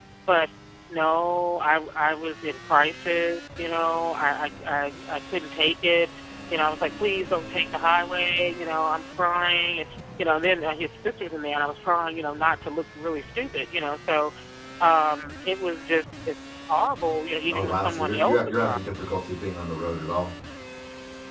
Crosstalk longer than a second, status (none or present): present